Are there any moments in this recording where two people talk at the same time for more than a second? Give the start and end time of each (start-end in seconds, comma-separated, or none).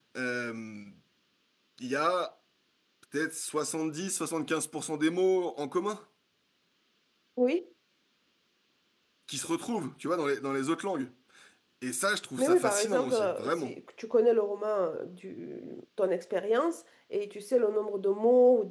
12.4-13.7